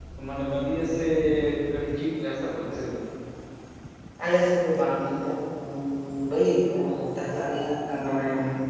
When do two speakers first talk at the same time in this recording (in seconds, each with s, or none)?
none